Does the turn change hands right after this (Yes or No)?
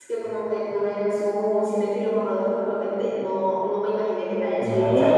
Yes